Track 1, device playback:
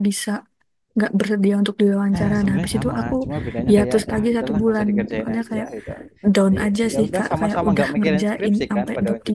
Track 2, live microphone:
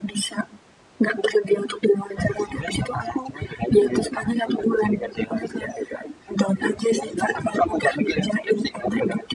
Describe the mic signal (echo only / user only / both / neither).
echo only